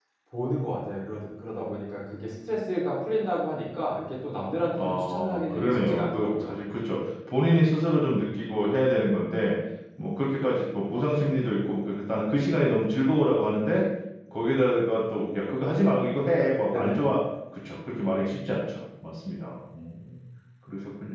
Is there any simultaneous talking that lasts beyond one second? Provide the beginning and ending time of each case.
4.7-6.5

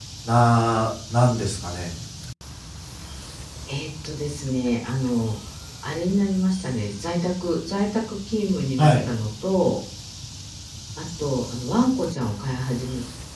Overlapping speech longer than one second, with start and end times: none

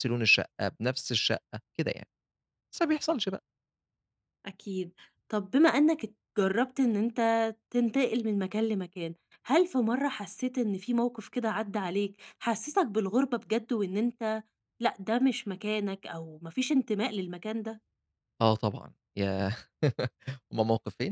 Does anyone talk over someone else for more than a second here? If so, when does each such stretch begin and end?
none

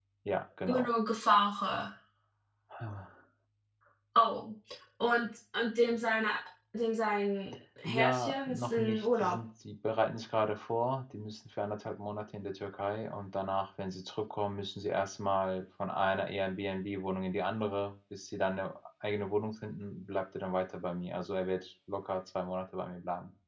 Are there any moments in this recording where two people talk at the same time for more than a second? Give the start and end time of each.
7.8-9.4

